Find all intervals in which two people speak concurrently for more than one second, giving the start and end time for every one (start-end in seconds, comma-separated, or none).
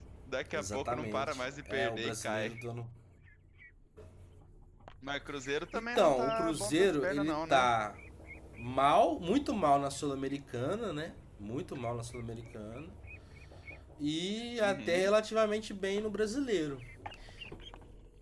0.5-2.5, 5.7-7.7